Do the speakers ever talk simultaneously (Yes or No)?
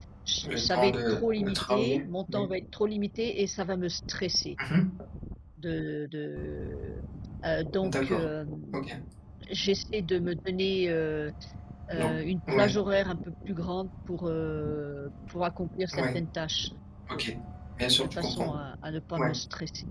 Yes